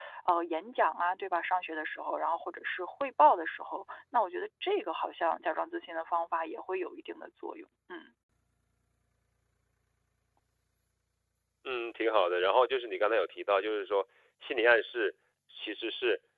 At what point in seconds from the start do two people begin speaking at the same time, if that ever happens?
none

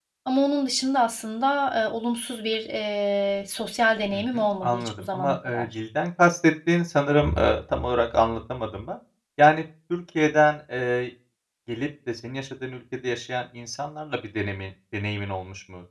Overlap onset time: 4.1 s

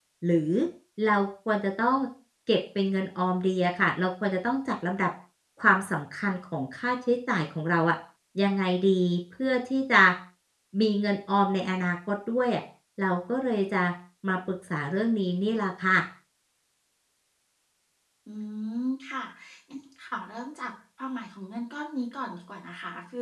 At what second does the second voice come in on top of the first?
none

